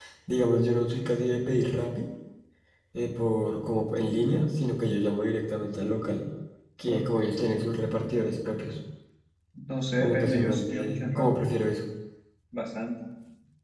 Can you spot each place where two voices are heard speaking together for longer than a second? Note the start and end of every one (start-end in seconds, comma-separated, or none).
10.0-11.3